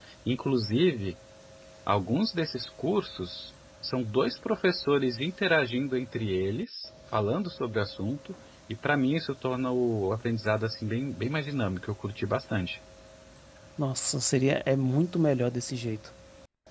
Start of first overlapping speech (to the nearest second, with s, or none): none